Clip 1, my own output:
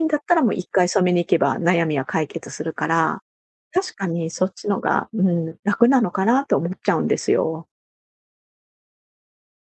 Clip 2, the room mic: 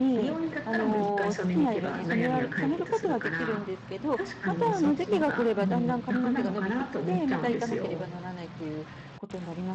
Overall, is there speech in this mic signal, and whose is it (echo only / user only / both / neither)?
both